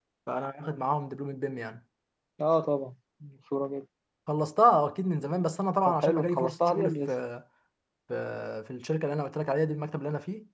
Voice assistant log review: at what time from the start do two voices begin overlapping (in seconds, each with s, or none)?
5.9 s